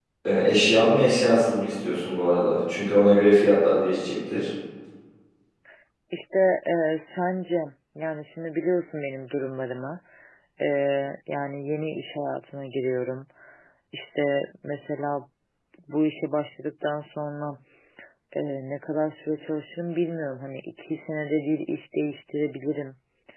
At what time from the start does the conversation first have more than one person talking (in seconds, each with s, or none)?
none